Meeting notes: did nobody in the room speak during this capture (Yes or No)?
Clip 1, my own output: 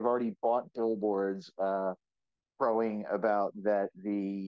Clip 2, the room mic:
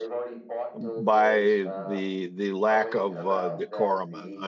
No